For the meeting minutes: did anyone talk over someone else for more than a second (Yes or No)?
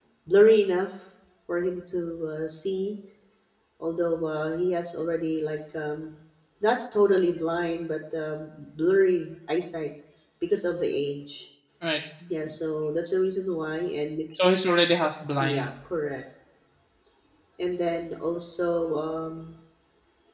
No